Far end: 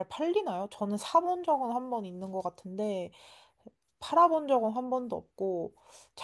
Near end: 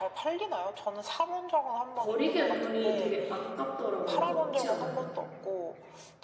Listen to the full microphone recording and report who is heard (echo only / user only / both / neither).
both